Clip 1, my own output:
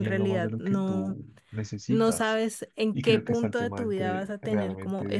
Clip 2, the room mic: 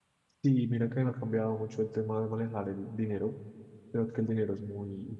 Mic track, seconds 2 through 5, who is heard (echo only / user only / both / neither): user only